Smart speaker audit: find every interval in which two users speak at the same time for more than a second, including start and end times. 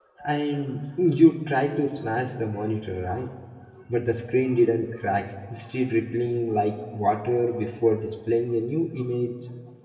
none

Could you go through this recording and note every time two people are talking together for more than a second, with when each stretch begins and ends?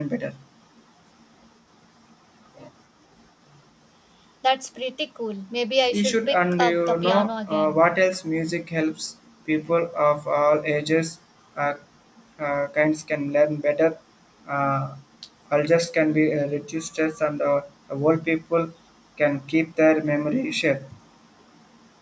5.9-7.8

